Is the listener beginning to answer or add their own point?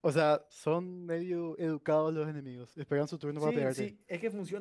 Yes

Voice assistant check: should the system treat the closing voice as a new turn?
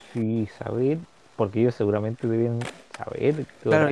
Yes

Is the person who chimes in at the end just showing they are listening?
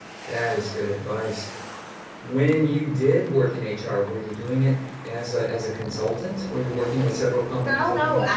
No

